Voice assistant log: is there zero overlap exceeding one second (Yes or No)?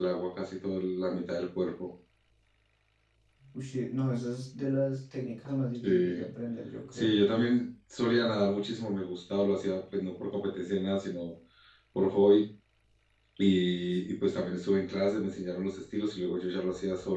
Yes